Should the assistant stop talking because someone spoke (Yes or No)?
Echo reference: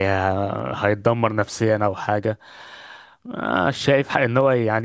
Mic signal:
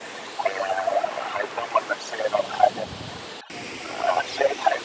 No